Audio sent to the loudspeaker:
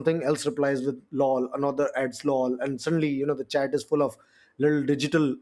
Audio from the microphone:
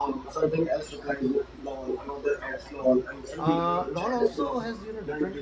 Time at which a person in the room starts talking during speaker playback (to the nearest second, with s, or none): 3 s